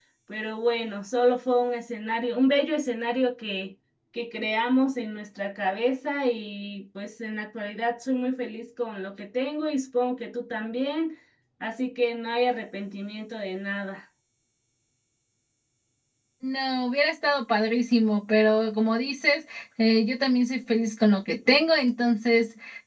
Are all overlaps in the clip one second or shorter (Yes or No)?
Yes